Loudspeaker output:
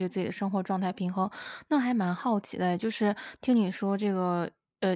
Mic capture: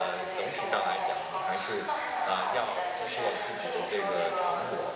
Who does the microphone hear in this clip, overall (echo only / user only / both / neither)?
both